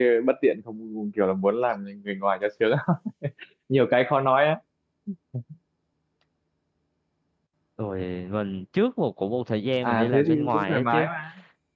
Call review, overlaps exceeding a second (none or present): present